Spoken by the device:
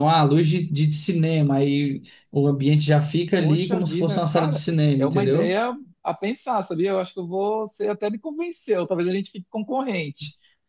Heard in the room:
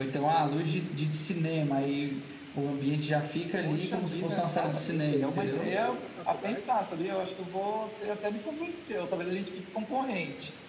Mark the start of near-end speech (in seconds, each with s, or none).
4.6 s